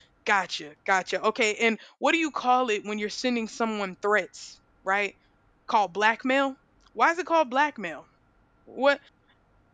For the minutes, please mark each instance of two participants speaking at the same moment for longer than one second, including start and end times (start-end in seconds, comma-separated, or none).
none